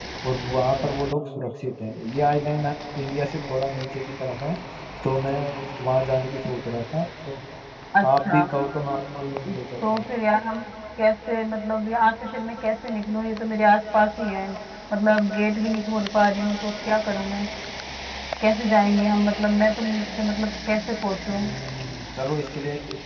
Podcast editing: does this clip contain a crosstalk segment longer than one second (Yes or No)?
No